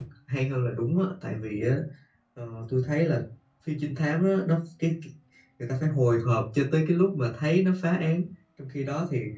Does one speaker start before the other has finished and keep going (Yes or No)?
No